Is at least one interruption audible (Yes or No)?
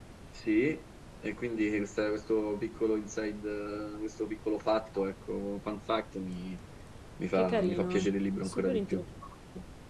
Yes